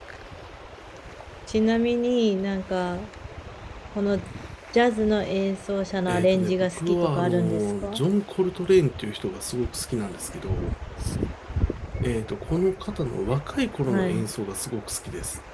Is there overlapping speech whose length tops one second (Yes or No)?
Yes